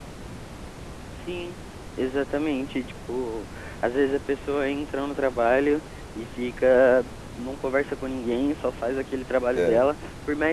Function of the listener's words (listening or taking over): listening